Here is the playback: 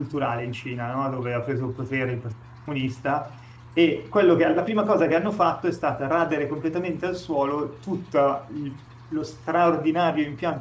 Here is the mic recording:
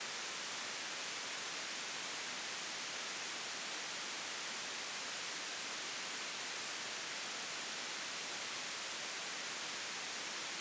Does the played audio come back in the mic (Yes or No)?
No